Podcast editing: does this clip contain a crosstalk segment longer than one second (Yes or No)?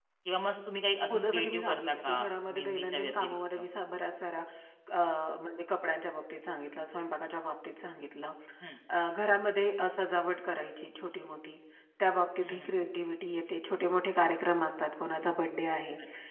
Yes